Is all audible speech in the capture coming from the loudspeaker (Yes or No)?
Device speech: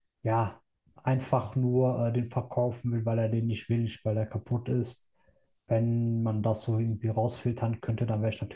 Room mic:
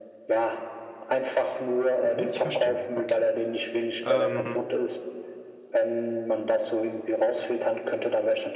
No